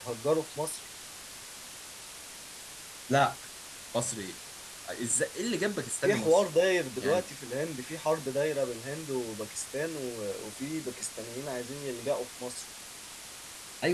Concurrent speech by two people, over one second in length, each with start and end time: none

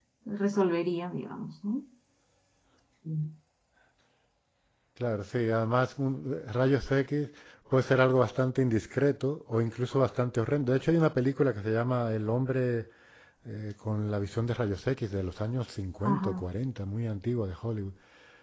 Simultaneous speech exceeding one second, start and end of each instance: none

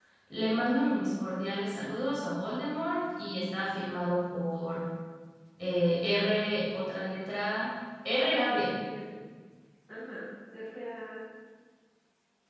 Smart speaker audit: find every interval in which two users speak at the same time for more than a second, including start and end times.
none

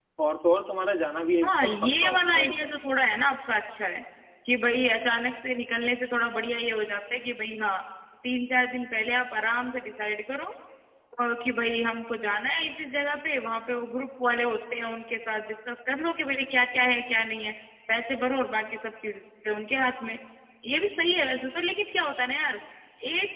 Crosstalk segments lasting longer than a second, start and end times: 1.4-2.7

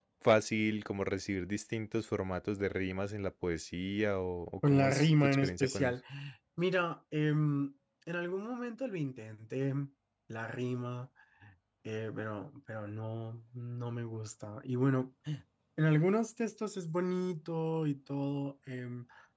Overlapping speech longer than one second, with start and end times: 4.6-5.9

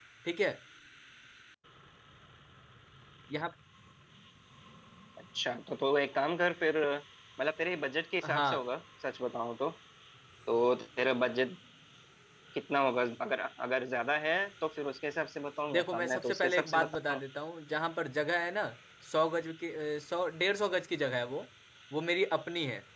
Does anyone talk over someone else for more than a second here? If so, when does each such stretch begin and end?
15.7-17.2

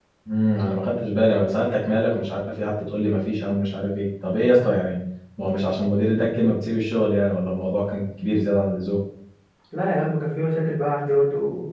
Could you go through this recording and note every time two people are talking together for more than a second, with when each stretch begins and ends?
none

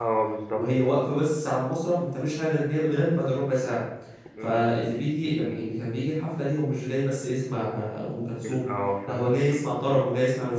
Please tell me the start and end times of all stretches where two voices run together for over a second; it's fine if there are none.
none

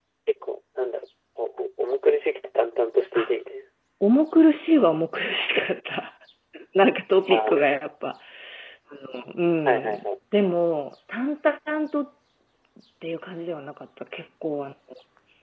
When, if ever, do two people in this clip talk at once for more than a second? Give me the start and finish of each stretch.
none

